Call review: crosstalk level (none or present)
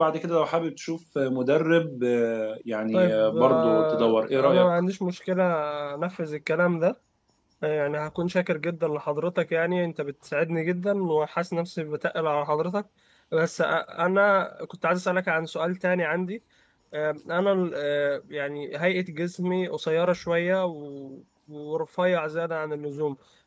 present